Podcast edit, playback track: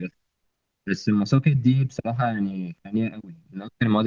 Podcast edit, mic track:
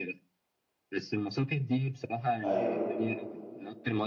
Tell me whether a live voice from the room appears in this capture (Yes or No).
Yes